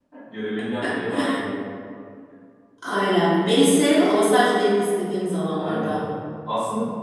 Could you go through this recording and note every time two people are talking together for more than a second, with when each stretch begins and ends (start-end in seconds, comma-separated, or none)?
none